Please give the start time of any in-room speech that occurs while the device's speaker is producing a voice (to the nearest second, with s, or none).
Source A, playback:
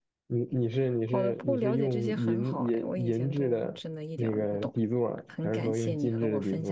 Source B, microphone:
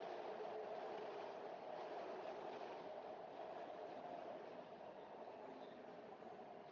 none